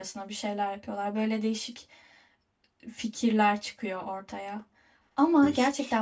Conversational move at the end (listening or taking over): listening